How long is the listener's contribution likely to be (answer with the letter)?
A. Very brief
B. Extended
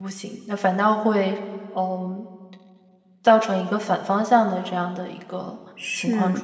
B